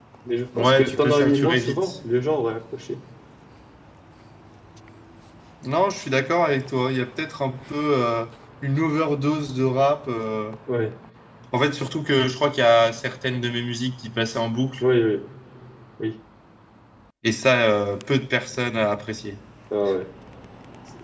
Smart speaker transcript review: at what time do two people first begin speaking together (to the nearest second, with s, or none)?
1 s